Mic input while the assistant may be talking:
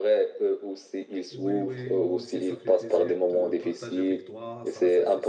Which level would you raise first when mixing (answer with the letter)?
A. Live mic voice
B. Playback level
A